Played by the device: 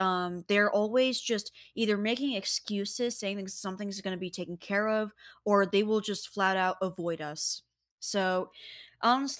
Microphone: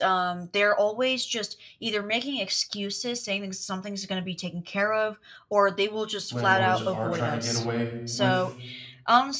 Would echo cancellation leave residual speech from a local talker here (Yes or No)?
Yes